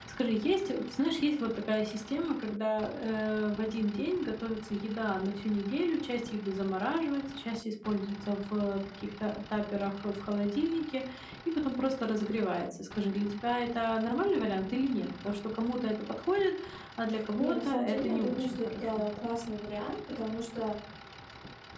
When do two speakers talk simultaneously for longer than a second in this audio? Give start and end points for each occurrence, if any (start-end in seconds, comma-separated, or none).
17.4-19.1